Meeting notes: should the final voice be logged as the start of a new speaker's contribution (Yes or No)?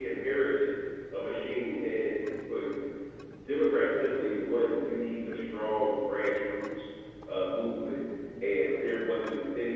No